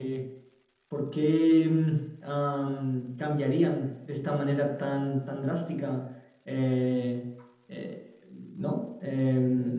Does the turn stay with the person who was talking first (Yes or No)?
No